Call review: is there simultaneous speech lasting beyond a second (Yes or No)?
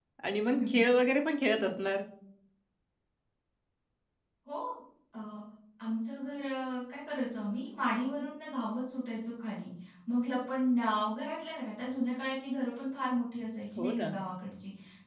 No